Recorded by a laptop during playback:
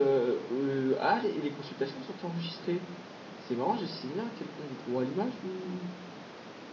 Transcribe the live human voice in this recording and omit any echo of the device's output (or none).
none